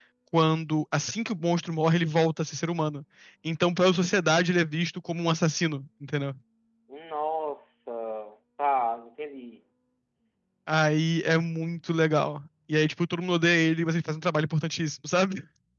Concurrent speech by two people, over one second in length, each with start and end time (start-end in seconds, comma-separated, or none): none